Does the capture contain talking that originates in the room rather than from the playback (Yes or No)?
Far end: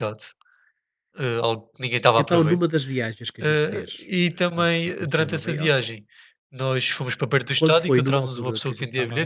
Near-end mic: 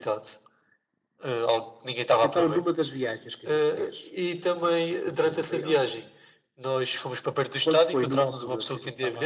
No